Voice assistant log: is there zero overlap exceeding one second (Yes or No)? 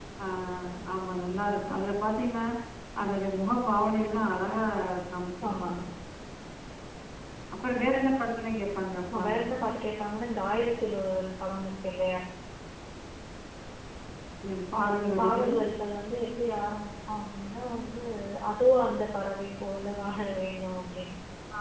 Yes